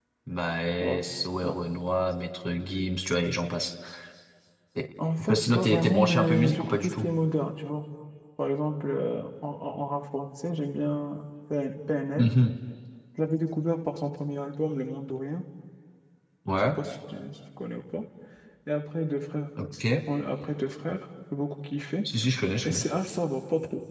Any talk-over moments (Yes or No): Yes